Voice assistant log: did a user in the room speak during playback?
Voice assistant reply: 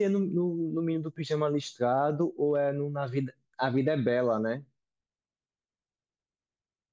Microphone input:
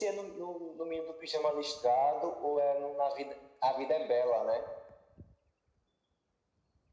No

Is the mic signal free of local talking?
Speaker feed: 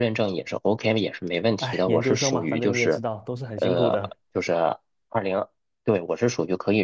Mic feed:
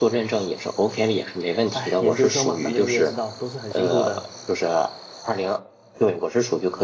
Yes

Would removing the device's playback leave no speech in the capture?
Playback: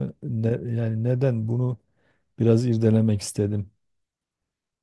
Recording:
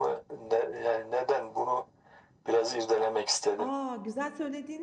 No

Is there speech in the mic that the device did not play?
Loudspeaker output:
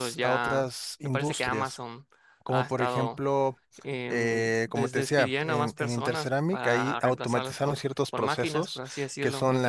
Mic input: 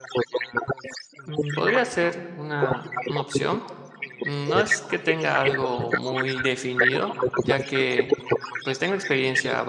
Yes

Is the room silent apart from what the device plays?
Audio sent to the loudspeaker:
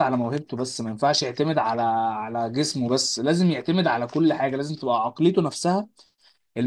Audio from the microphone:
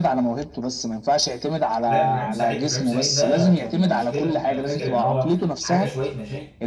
No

